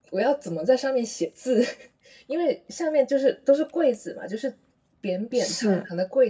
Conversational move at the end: listening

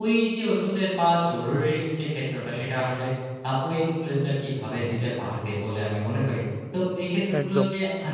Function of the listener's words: listening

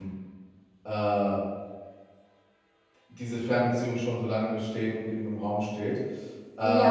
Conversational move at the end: taking over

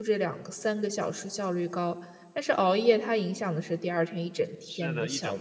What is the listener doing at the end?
taking over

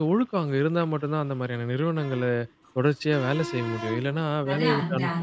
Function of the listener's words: taking over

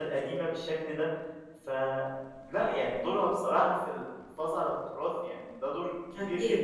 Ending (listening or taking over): taking over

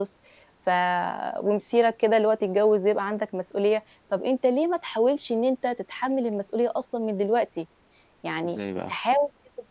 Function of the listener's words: listening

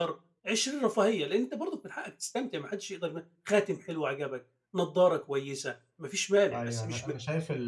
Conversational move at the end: taking over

